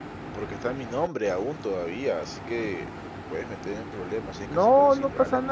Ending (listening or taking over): taking over